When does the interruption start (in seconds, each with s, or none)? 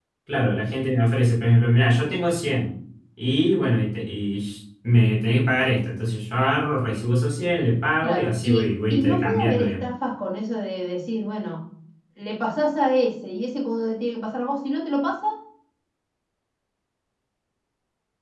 8.0 s